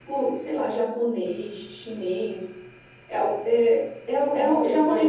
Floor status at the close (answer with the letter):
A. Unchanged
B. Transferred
B